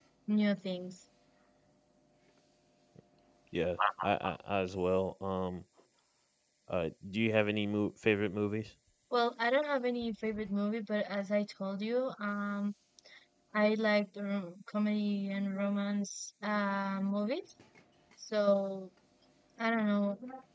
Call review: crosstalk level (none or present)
none